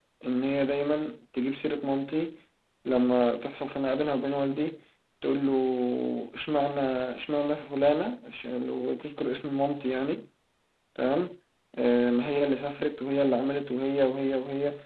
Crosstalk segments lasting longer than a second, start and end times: none

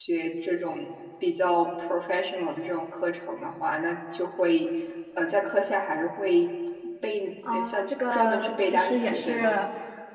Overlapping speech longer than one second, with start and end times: 7.5-9.6

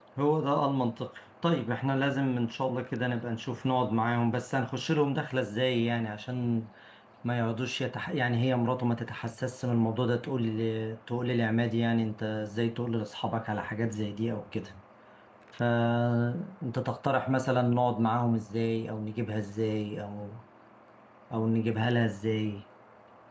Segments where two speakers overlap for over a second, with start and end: none

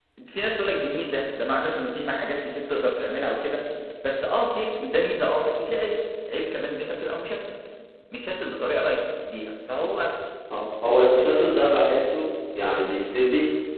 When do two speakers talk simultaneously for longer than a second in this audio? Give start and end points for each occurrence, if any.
none

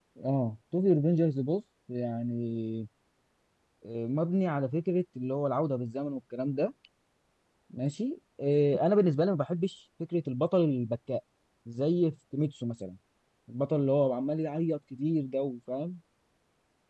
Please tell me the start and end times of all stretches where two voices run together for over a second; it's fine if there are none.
none

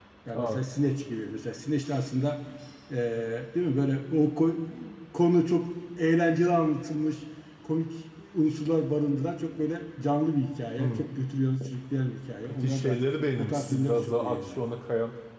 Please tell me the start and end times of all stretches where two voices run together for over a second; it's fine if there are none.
13.4-14.6

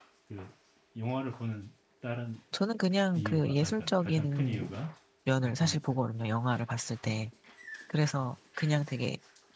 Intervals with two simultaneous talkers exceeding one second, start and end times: 3.2-4.7

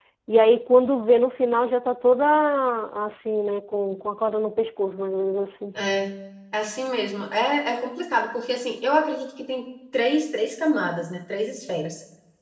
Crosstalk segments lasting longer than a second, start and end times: none

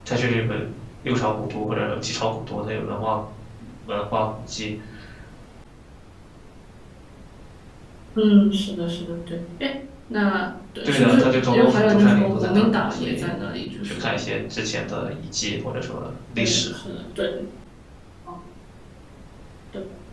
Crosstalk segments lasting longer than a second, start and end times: 10.8-13.3

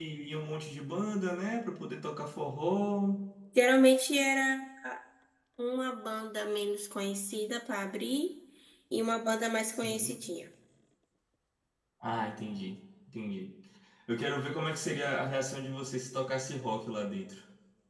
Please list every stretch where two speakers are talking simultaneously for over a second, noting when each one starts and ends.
none

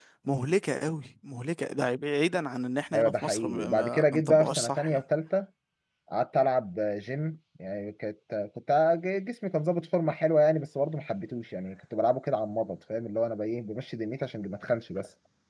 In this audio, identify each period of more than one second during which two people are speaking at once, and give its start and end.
2.9-5.0

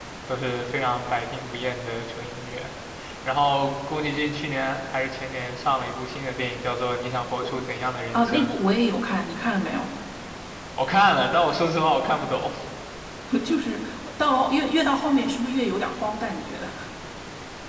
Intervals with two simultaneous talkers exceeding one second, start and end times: none

